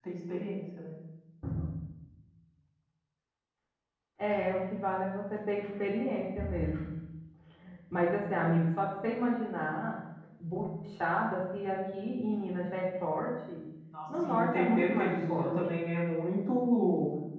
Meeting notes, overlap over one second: present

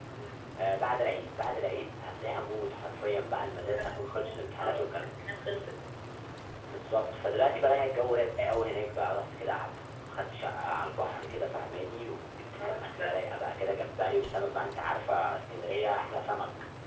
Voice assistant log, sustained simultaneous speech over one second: present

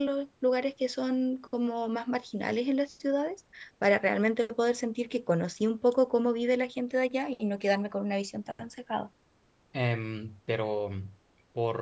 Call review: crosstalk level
none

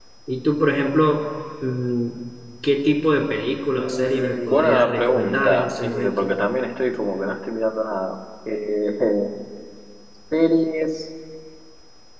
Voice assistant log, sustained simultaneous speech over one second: present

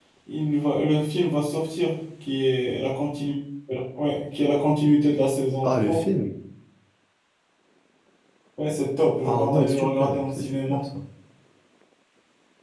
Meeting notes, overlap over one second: present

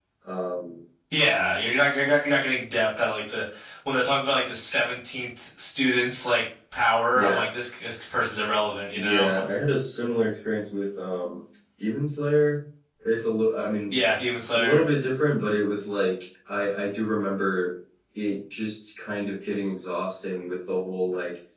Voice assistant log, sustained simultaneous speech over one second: none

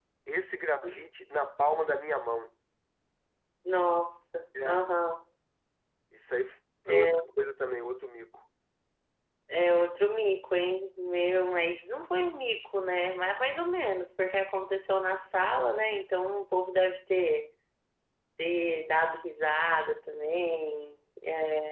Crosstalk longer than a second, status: none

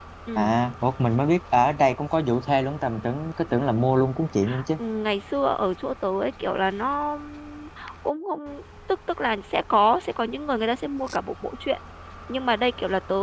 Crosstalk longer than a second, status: none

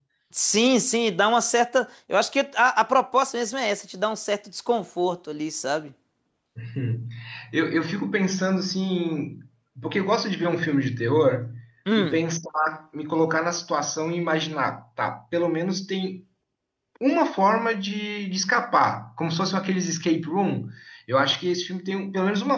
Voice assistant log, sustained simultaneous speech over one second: none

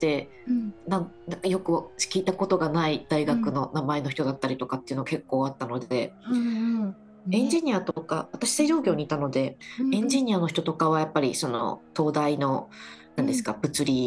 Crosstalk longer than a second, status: none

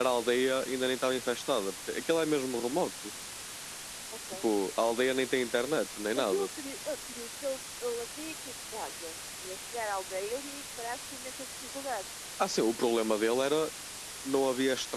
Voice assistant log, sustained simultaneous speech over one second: none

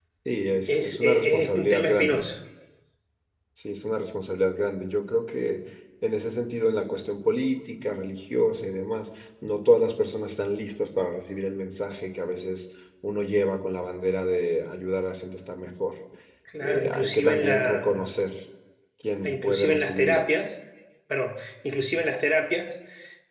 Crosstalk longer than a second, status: present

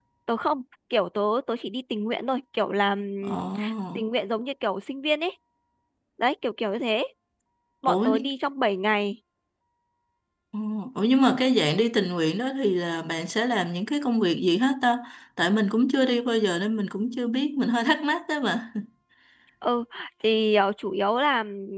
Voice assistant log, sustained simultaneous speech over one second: none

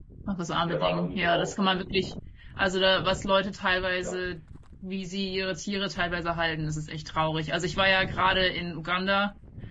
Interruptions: present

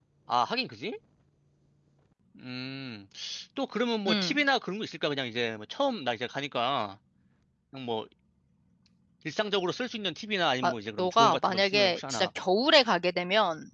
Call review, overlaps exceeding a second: present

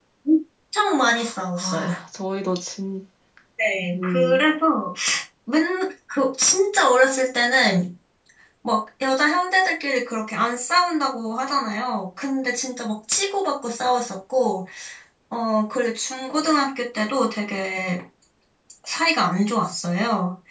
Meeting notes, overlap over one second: none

